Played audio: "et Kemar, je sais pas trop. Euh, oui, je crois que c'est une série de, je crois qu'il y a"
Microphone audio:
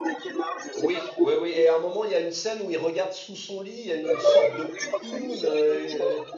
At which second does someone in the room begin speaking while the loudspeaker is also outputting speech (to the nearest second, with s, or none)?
1 s